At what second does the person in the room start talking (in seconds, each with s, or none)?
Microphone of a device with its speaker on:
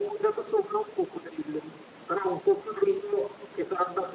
none